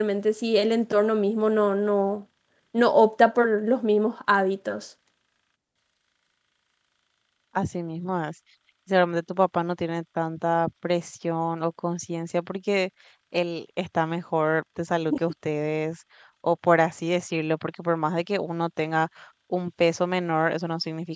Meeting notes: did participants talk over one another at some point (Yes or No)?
No